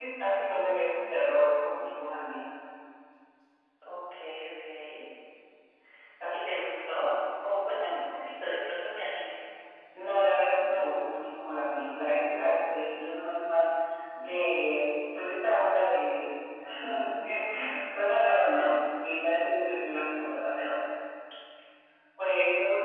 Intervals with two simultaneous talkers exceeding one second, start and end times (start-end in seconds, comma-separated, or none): none